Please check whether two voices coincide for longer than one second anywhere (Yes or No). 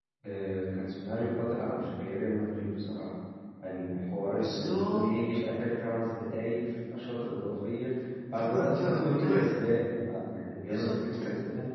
Yes